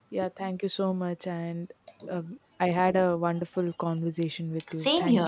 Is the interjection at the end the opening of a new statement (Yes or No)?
Yes